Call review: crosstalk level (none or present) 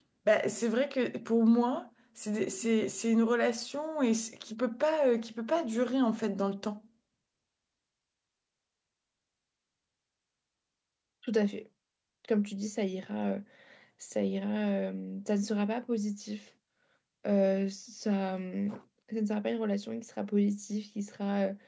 none